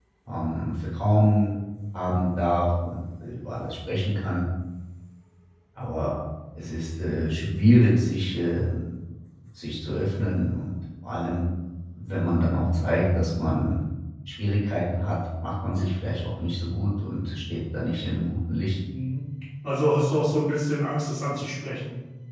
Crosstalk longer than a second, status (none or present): none